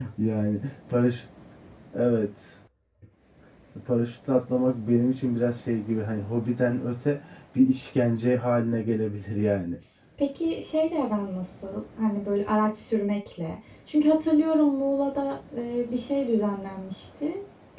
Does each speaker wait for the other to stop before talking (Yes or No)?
Yes